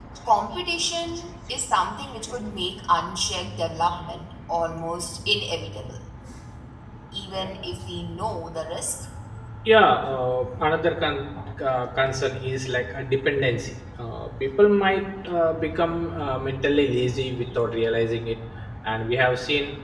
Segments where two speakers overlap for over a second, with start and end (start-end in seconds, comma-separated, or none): none